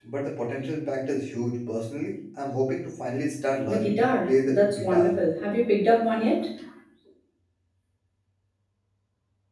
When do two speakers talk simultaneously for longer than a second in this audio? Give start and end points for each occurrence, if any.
3.6-5.2

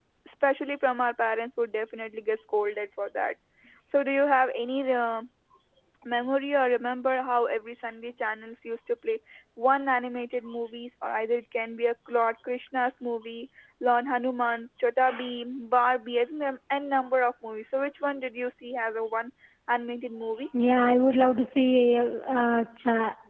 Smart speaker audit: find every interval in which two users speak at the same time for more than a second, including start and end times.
none

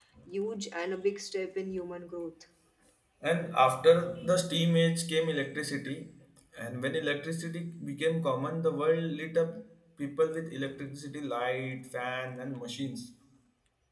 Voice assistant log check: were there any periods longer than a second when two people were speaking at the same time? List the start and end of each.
none

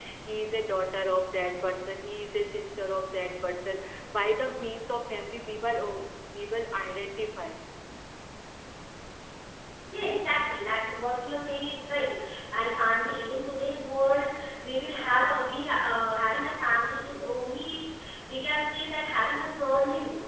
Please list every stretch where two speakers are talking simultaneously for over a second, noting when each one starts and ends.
none

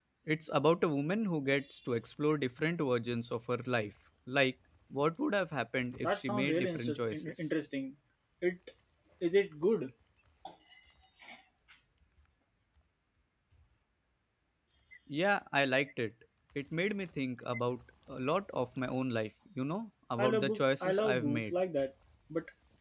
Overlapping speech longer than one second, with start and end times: 6.0-7.3, 20.2-21.6

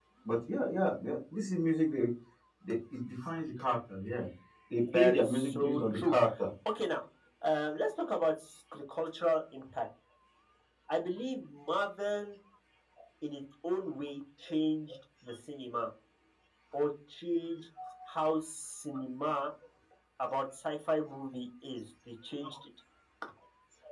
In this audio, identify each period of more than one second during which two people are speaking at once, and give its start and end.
4.9-6.1

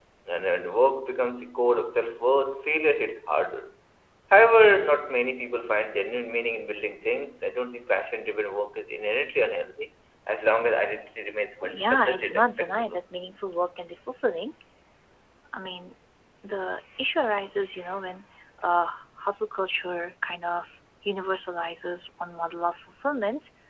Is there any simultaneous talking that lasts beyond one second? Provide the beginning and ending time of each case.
11.7-13.0

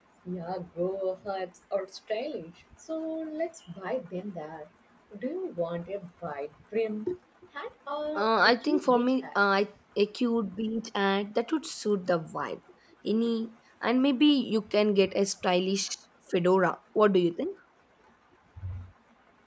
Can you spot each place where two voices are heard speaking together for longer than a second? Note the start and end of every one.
8.2-9.4

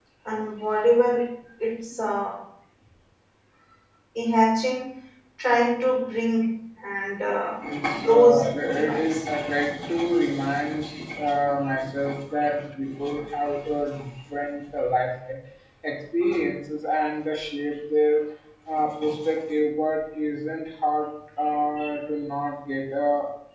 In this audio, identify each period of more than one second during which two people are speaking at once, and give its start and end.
7.9-9.2

